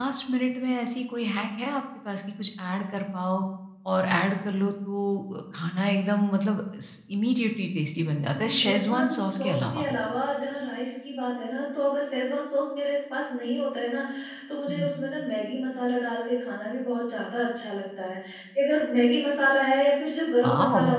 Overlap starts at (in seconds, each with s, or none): 8.3 s